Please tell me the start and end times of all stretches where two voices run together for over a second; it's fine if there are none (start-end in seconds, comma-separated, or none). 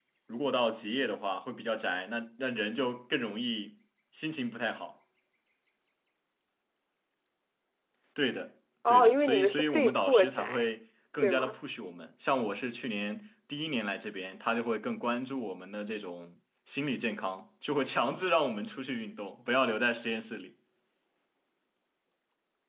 8.9-10.7